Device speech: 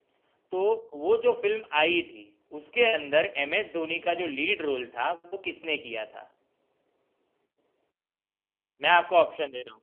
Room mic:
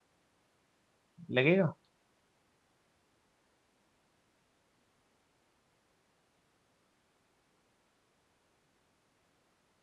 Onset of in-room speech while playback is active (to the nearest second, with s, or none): 1 s